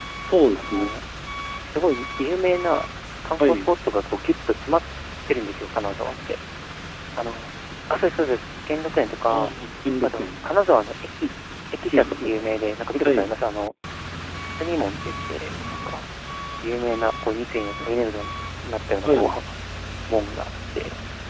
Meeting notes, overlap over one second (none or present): none